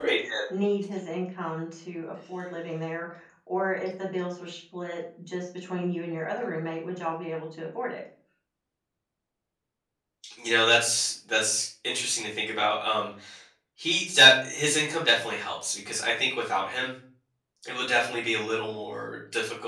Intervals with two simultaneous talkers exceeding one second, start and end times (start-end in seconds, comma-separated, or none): none